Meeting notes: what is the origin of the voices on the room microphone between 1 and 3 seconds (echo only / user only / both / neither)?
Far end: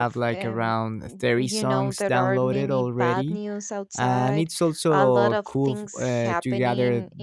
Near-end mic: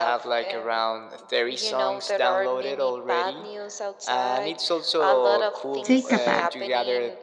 echo only